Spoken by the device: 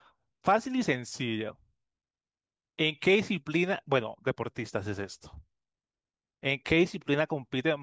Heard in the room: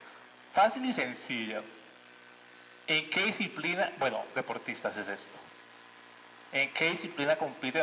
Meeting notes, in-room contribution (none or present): none